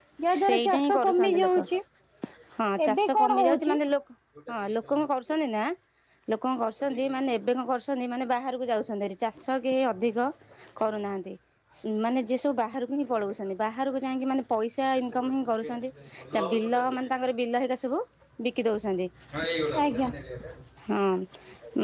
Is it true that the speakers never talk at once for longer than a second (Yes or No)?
No